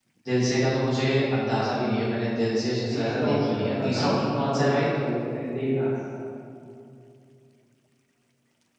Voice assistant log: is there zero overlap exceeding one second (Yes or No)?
No